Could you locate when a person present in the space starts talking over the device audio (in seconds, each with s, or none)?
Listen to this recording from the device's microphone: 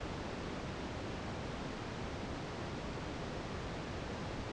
none